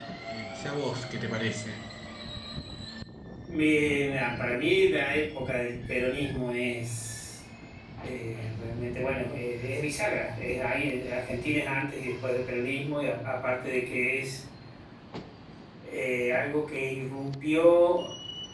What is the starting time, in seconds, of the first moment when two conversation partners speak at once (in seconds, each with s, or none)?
none